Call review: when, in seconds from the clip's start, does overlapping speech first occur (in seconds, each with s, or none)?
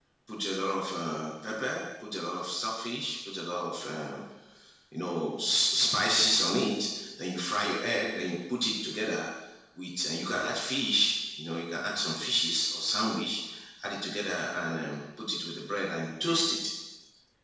none